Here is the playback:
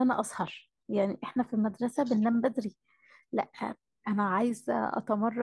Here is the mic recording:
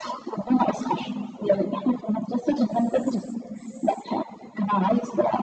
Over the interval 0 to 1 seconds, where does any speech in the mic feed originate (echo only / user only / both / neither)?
echo only